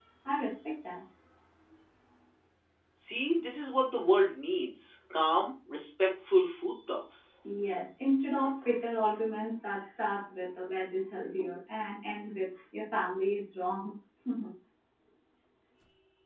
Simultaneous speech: No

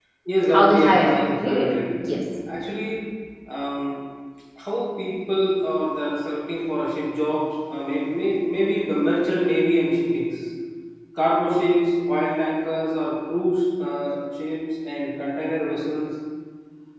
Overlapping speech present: Yes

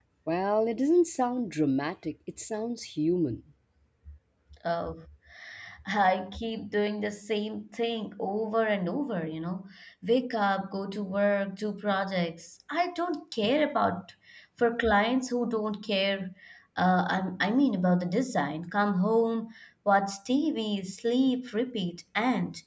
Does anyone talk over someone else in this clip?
No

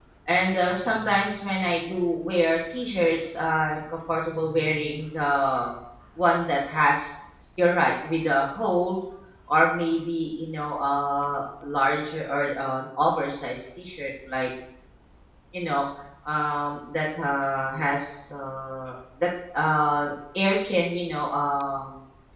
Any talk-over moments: No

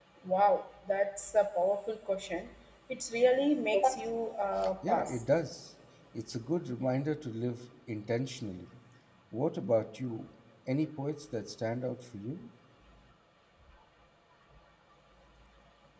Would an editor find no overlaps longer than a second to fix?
Yes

